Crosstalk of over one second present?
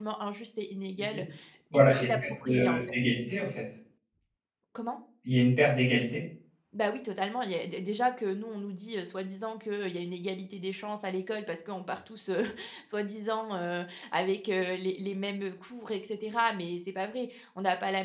Yes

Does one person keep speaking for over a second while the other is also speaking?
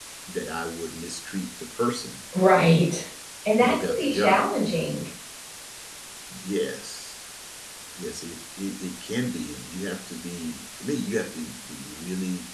Yes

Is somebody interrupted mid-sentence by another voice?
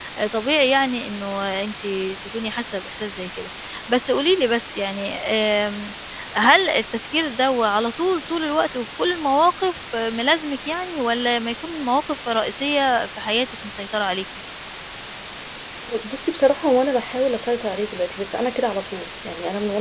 No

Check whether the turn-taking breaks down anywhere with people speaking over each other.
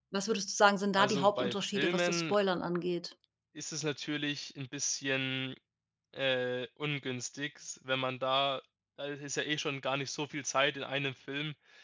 Yes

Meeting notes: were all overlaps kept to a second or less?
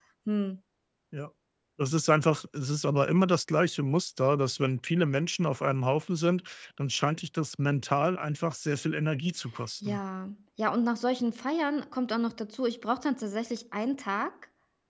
Yes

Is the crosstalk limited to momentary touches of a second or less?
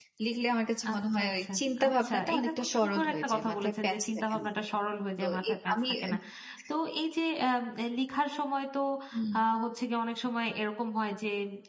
No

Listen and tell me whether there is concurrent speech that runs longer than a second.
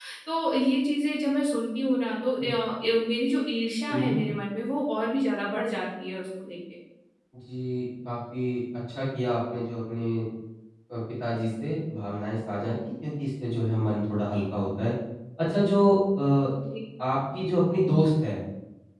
No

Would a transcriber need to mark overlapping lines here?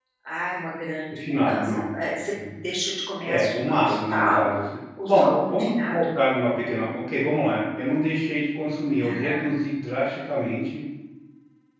Yes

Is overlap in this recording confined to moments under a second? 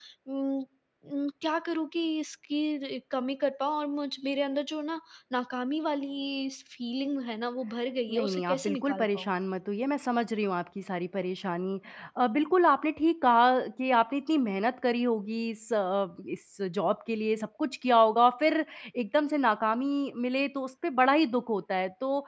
No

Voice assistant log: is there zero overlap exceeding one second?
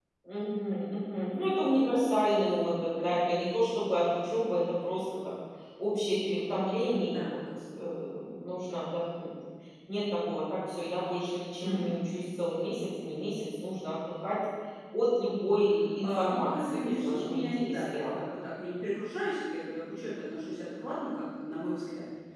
No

